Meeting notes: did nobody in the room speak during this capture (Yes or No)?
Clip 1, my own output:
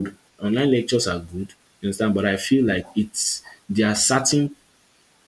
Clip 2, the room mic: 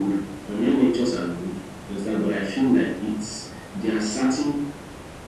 Yes